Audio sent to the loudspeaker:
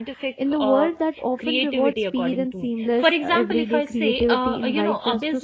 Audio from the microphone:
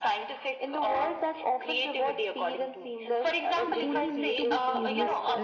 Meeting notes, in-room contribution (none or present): present